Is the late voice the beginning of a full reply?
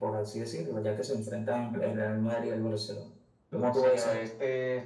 Yes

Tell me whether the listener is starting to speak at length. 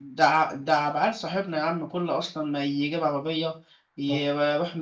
No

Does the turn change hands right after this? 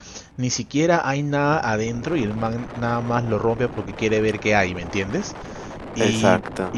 No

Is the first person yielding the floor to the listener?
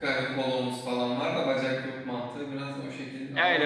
Yes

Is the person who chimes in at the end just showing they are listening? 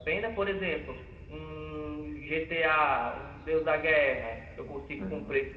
Yes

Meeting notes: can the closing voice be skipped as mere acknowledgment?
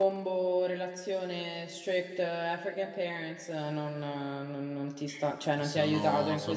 No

